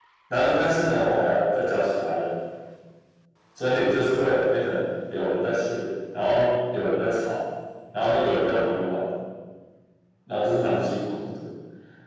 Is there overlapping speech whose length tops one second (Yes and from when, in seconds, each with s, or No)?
No